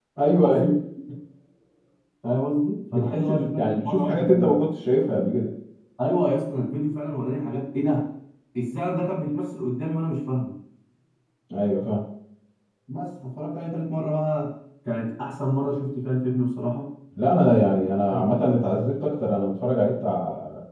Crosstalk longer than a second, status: present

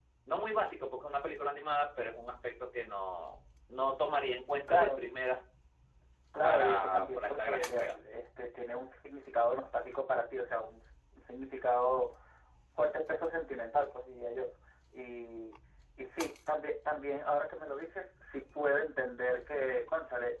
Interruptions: present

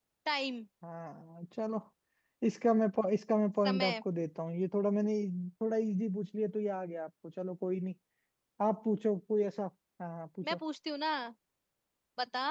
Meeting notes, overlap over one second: none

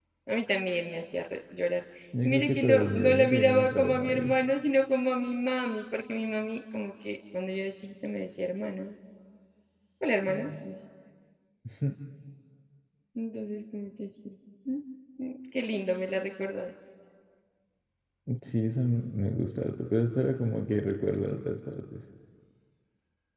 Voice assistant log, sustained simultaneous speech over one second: present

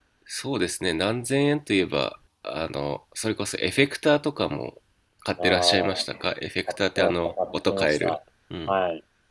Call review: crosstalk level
present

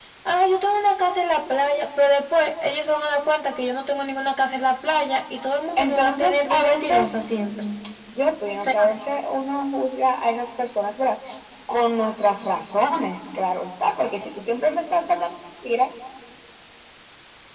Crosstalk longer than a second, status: present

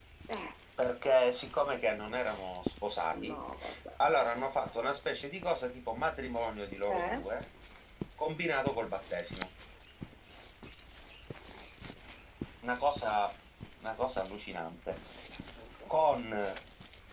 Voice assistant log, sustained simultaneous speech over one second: none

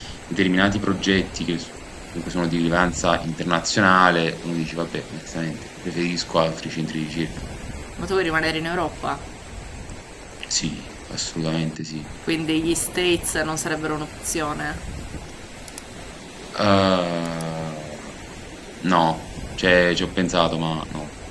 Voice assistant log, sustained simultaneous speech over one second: none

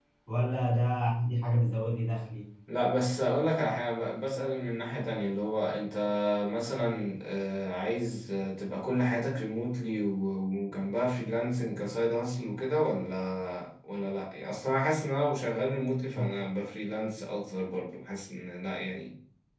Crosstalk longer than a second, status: none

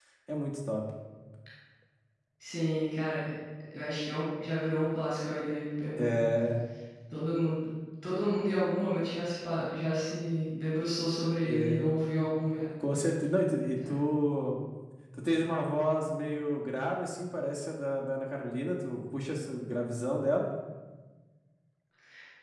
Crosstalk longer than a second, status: none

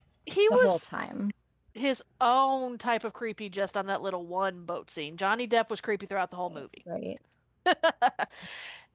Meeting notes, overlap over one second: none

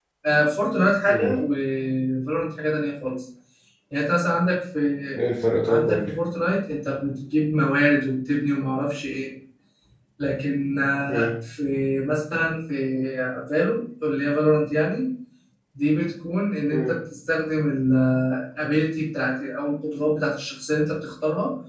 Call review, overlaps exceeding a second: none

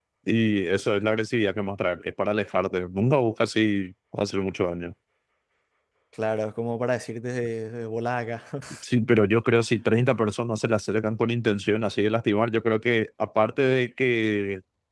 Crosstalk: none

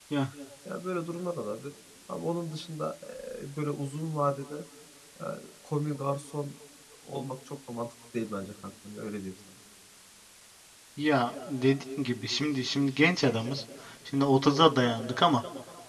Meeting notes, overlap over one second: none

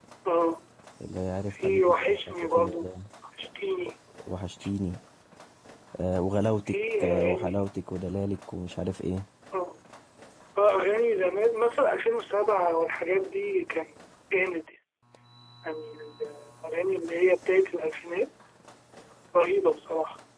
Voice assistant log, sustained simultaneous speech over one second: present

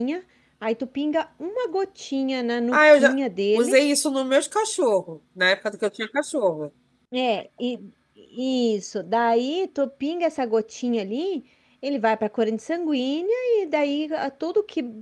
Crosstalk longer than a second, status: none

